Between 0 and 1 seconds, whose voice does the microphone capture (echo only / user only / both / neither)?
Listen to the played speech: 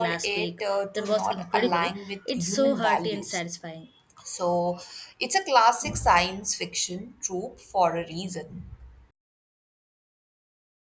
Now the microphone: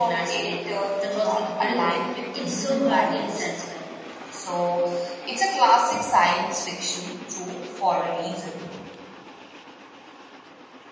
echo only